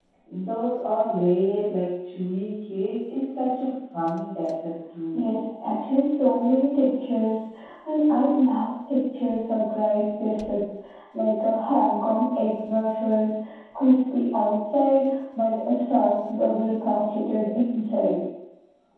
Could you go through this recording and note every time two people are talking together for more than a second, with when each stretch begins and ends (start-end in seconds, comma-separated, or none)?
none